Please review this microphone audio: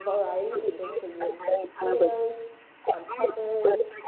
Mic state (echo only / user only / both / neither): both